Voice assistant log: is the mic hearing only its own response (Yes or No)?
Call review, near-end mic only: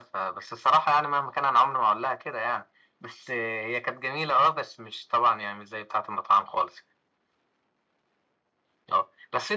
Yes